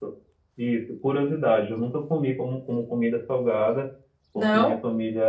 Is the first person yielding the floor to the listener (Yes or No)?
No